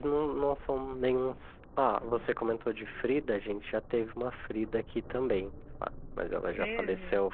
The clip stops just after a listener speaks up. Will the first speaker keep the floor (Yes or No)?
Yes